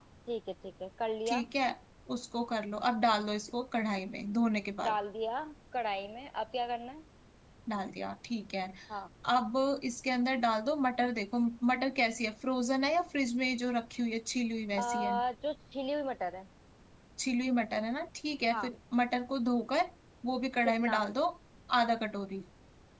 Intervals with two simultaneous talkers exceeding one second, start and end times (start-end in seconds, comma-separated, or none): none